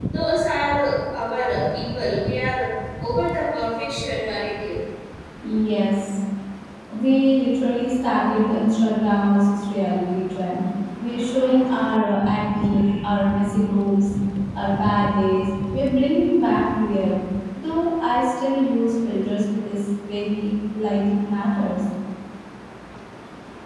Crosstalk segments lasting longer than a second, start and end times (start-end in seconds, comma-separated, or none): none